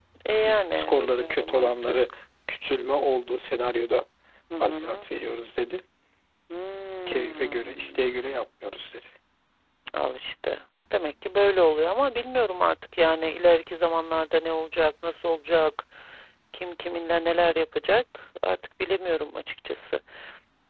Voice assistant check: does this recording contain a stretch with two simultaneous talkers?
Yes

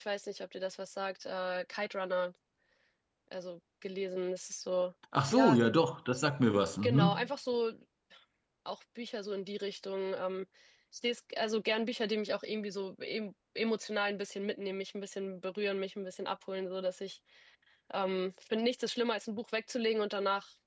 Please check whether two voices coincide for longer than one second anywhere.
No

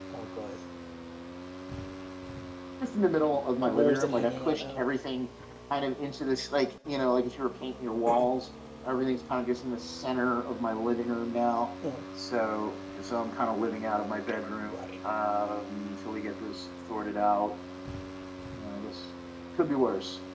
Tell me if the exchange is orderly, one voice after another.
No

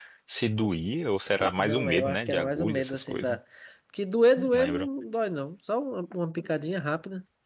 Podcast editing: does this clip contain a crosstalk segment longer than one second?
Yes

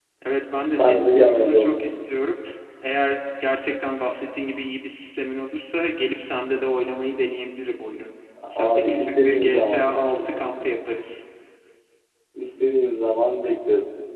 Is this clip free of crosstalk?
No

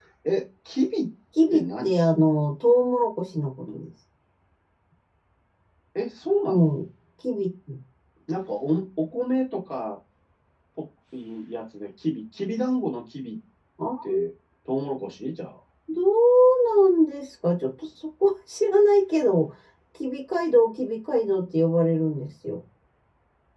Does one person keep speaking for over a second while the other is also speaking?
No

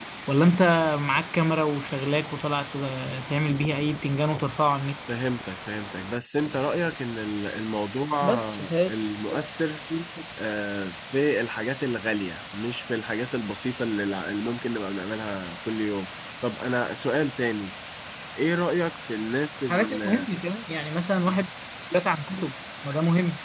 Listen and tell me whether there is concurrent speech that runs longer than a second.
No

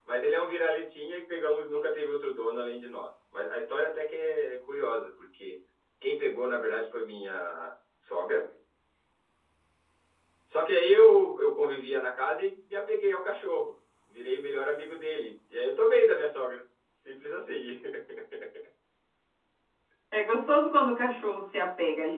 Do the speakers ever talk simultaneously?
No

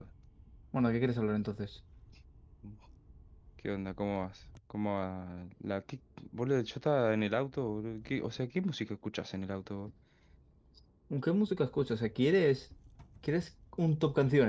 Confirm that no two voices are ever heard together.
Yes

